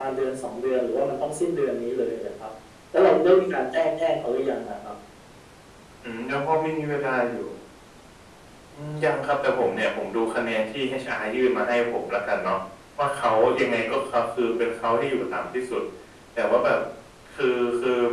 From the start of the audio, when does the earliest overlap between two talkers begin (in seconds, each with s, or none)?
none